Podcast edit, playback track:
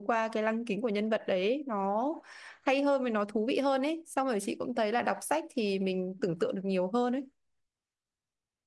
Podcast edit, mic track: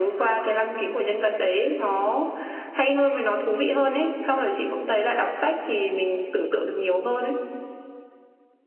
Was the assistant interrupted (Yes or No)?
No